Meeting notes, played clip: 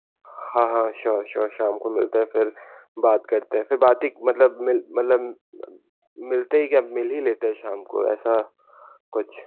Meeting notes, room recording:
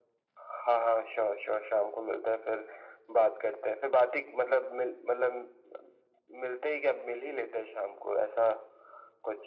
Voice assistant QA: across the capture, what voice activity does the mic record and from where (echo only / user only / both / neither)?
echo only